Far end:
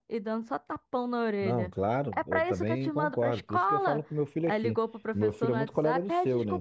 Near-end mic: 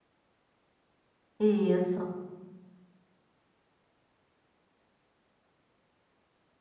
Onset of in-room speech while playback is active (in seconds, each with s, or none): 1.4 s